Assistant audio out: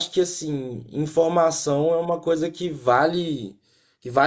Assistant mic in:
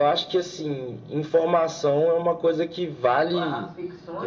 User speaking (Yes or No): Yes